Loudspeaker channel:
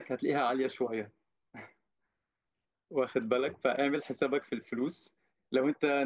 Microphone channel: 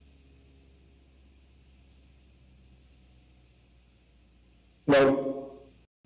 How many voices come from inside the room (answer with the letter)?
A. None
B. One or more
B